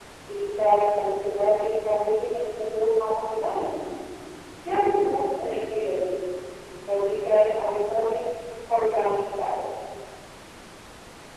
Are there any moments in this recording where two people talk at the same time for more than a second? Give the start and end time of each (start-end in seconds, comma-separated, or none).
none